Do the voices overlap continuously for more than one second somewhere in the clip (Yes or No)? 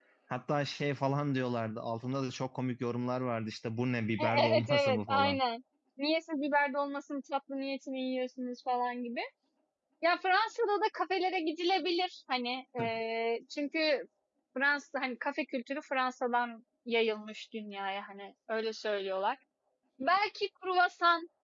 Yes